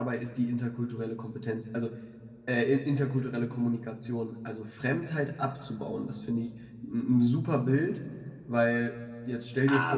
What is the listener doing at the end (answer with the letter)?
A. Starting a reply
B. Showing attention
A